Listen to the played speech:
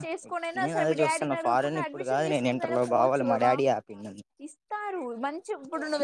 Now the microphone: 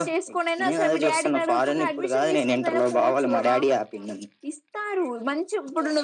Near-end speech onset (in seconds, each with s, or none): none